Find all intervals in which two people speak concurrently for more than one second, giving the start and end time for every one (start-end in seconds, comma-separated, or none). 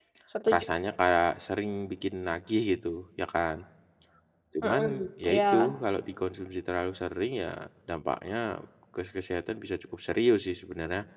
none